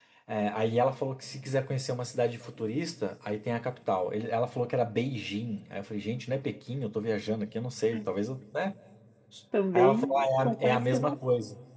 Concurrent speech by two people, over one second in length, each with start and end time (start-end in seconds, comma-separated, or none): 9.7-11.2